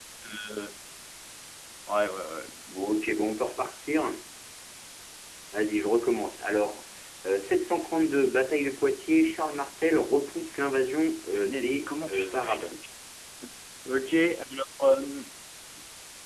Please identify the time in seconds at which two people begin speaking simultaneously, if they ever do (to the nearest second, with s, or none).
11 s